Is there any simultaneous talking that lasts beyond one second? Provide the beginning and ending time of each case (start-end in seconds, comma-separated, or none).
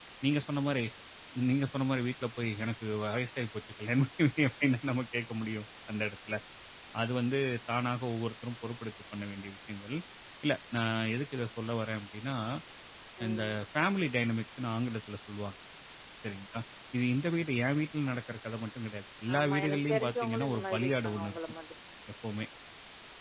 19.3-21.4